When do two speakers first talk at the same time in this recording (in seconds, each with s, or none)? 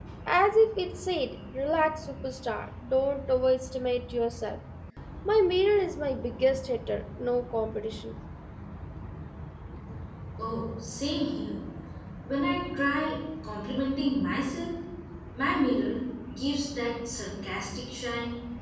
none